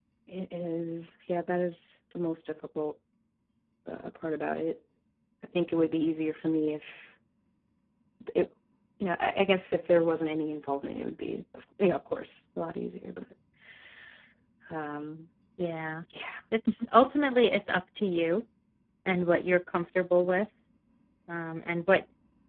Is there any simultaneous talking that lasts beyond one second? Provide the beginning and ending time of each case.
none

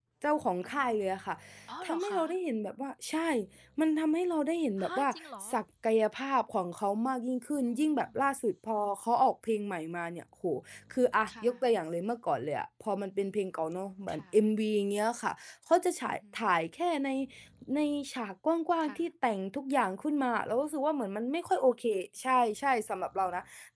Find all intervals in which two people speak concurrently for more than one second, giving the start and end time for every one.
none

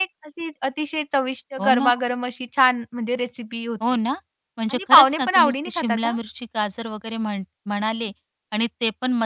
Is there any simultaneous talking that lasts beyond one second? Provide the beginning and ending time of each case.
4.7-6.2

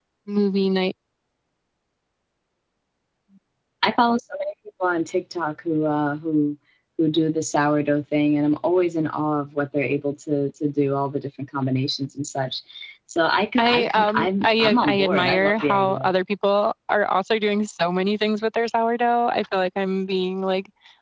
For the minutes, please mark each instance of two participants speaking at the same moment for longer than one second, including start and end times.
13.6-16.1

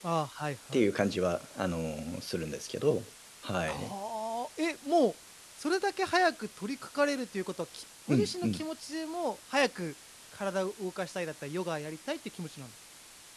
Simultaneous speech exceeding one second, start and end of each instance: none

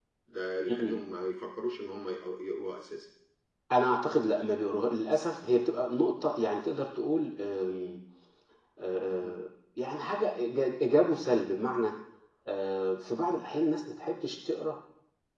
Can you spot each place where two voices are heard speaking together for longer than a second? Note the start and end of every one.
none

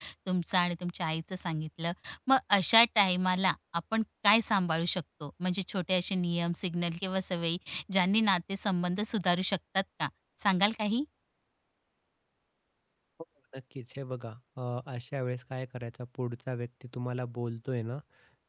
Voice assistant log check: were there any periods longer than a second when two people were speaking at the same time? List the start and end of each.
none

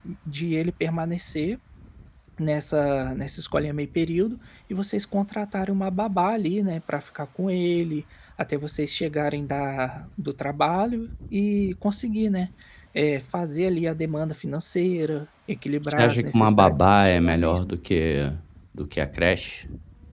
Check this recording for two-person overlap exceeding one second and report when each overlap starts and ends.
15.8-17.6

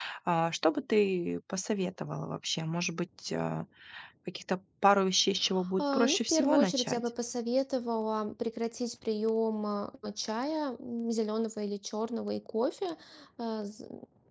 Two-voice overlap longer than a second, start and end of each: 5.8-7.0

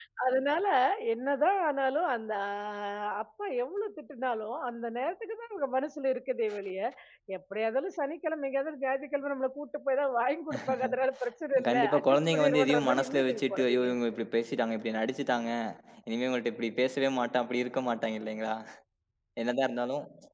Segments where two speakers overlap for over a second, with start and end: 11.7-13.9

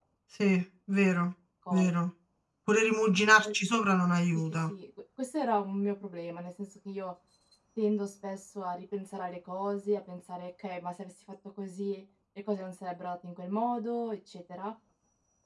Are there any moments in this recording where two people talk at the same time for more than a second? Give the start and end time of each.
none

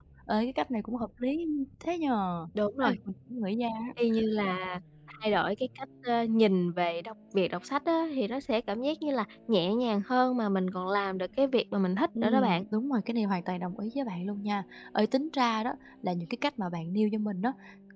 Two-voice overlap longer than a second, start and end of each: none

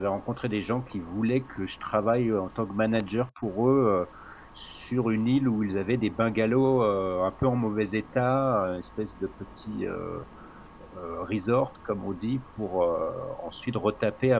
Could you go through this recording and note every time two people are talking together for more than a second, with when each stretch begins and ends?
none

